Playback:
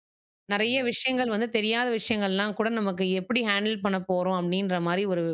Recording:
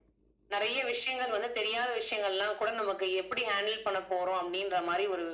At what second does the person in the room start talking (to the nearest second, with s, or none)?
none